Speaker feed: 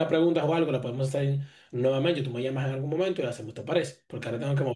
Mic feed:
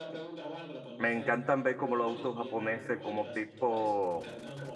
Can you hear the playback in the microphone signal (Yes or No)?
Yes